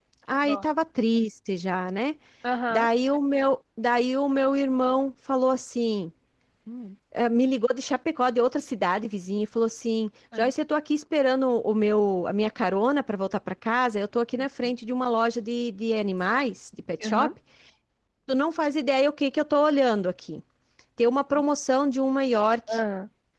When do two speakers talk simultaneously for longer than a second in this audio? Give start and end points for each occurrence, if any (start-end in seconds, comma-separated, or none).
none